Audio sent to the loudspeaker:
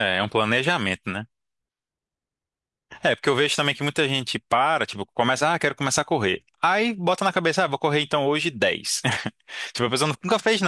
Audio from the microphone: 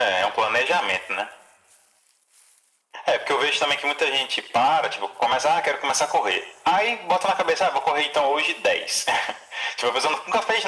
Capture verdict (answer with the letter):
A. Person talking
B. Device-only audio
B